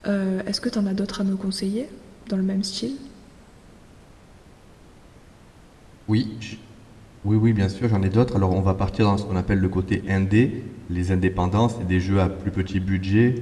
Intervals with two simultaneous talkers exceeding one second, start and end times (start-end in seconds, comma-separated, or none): none